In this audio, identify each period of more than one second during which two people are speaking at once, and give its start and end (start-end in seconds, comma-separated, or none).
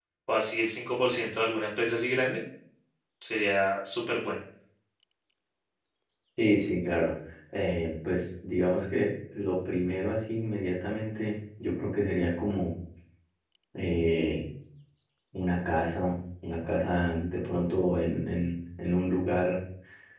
none